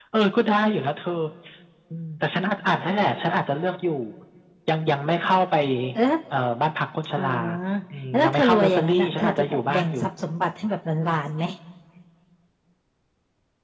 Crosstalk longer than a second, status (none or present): present